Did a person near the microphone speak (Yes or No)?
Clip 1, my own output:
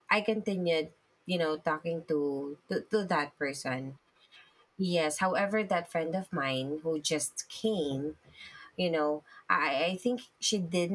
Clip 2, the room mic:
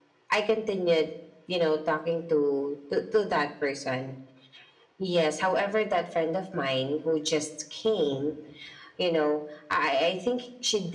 No